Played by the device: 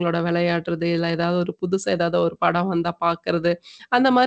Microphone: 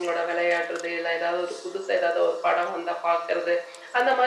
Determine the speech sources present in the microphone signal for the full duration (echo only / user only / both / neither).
echo only